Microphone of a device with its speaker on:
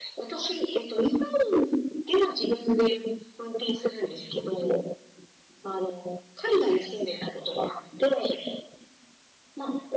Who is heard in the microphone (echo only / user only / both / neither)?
echo only